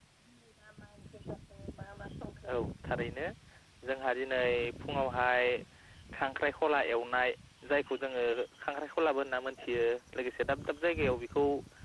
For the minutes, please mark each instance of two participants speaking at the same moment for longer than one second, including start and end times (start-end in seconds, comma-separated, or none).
none